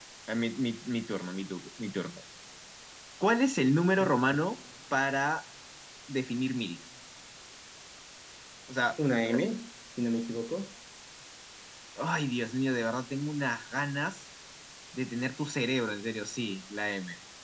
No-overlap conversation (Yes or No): Yes